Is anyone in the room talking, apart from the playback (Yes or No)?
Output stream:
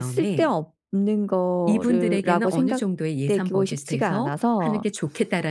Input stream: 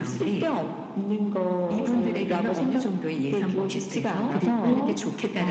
Yes